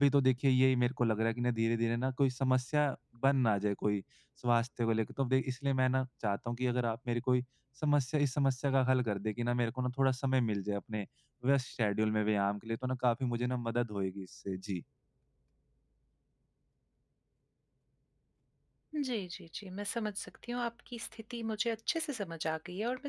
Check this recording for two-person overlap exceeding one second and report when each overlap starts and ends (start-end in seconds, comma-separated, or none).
none